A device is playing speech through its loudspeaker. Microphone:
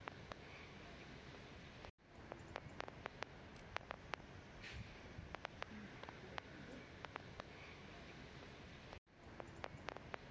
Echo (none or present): none